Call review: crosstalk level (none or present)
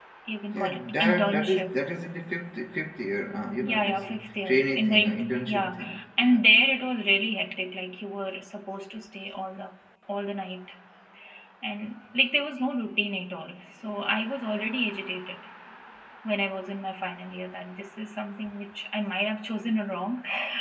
present